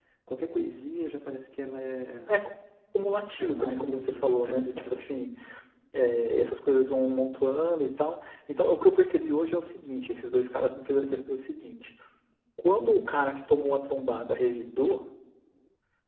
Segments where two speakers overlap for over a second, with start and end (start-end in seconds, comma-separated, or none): 3.4-5.1